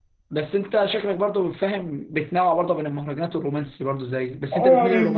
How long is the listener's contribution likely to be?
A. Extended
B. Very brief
A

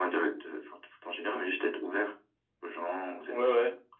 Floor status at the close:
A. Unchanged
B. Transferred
B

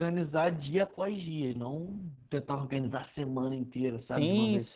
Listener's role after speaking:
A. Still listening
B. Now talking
B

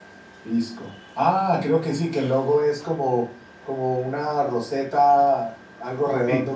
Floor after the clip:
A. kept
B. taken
A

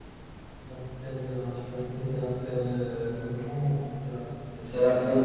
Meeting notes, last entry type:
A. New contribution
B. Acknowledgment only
A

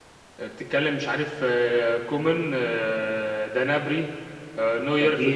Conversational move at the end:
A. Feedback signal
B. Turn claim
A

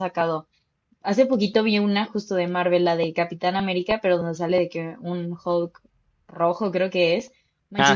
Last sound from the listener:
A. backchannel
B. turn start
A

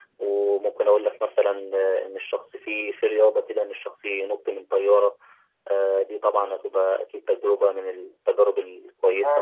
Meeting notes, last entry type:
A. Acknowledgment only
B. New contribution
B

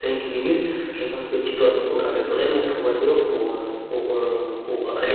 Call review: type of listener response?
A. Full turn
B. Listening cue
B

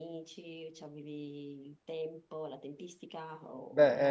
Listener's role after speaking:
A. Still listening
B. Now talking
B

